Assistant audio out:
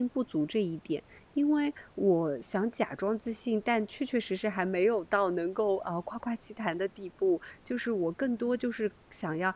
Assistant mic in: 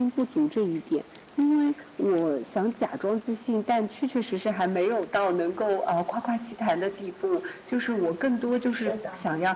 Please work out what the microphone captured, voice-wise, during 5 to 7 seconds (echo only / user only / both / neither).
echo only